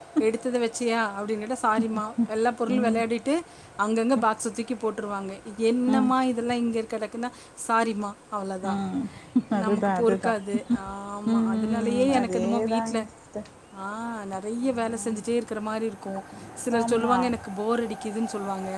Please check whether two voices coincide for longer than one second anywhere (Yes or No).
Yes